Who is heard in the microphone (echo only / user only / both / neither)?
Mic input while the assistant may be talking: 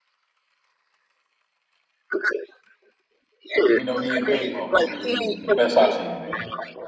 both